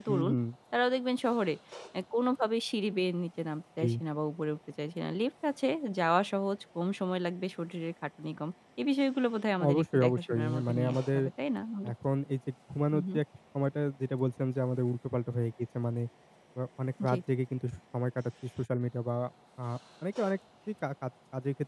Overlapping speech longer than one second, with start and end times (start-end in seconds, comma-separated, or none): 9.7-11.2